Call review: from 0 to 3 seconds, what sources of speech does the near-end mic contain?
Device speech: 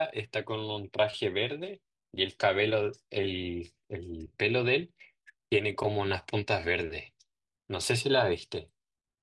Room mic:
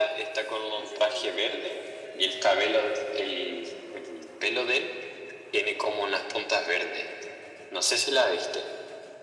both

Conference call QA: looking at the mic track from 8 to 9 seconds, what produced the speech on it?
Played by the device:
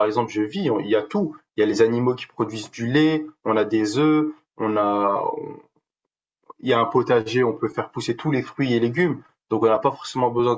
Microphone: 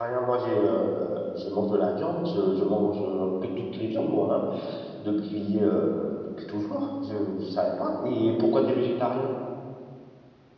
user only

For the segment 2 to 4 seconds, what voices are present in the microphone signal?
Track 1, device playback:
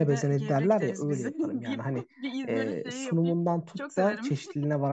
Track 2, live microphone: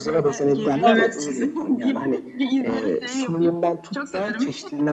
echo only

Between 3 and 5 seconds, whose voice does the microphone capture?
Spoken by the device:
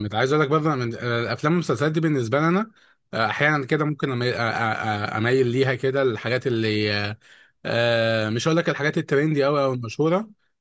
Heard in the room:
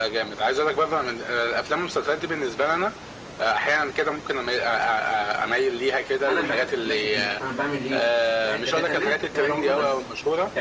echo only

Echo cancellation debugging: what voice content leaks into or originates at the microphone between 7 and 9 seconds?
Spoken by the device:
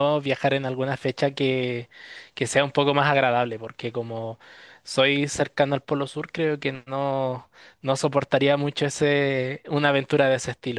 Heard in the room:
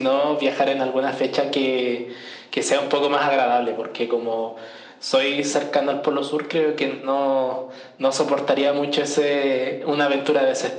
echo only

